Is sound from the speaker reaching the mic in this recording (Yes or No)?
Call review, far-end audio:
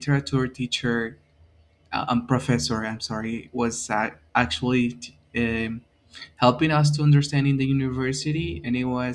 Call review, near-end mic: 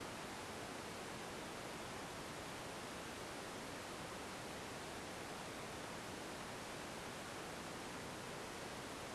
No